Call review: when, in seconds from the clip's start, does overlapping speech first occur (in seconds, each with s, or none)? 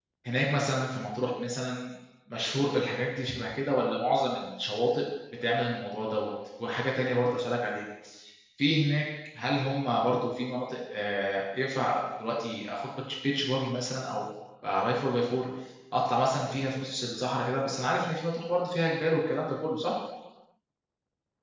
none